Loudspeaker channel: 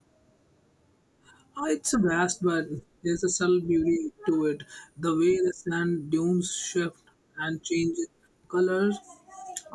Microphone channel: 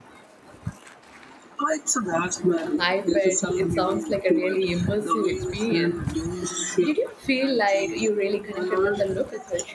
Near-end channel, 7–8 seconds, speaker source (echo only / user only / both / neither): both